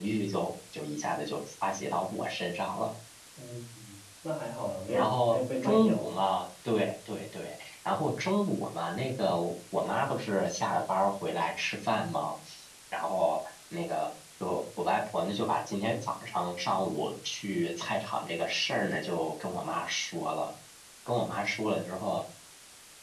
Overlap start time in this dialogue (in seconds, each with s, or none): 4.9 s